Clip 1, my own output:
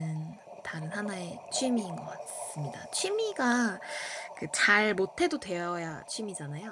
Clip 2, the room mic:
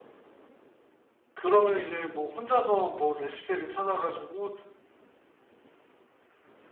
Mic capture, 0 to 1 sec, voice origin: neither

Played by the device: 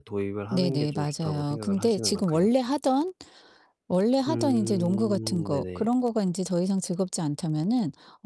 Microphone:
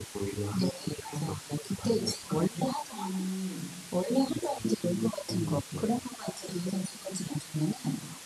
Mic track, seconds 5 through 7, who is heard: echo only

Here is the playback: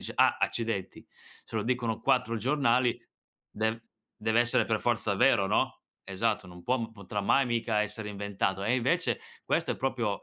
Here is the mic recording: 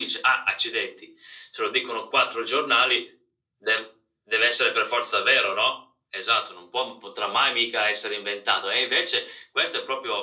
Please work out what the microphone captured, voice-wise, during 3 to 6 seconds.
echo only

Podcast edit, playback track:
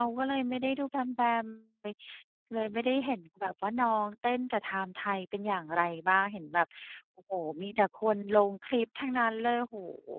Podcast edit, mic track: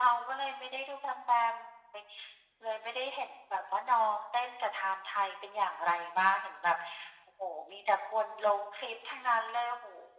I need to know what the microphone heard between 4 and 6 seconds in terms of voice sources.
echo only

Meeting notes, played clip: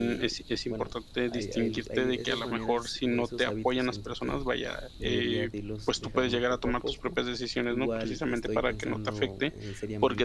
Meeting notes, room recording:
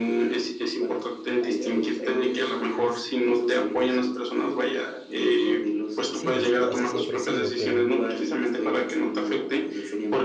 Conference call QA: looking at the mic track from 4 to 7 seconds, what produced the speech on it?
both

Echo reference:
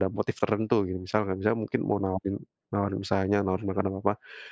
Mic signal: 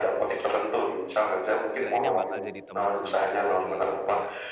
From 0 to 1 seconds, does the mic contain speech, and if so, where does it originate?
echo only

